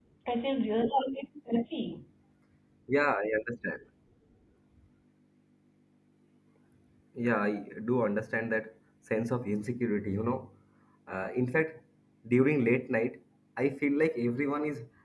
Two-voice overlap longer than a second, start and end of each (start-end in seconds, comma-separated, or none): none